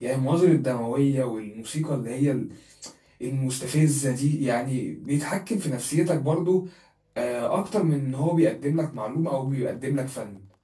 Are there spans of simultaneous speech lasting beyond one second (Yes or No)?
No